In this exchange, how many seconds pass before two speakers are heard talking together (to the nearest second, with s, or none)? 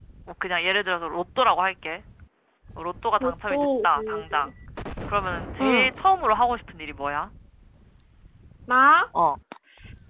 3 s